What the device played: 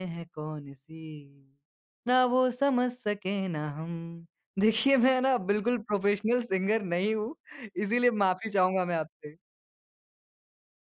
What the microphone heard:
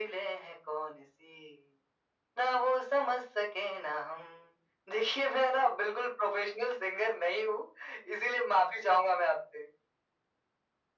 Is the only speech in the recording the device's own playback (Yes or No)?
Yes